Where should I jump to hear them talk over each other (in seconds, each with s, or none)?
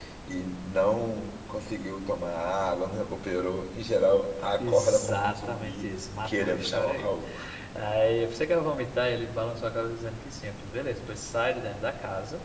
4.6 s